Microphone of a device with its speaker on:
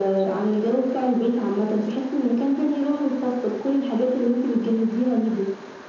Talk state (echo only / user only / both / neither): echo only